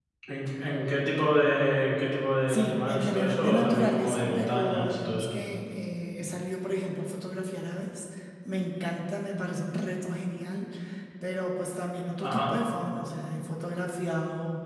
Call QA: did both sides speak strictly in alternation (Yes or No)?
No